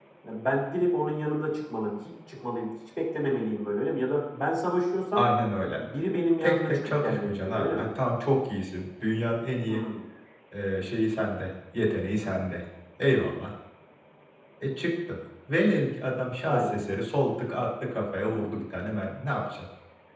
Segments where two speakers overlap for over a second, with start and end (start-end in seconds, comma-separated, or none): 6.4-7.8